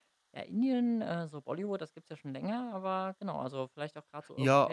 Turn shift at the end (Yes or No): Yes